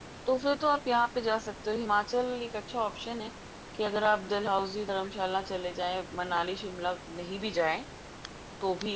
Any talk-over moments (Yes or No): No